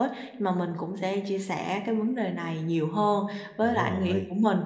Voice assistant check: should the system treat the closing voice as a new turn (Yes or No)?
No